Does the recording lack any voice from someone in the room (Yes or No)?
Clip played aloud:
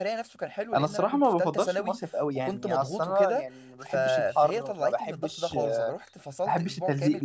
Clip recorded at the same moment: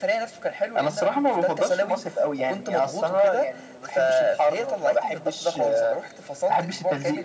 Yes